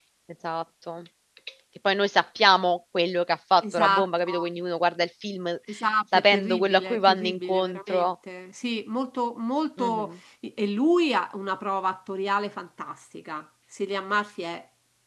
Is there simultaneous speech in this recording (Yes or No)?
Yes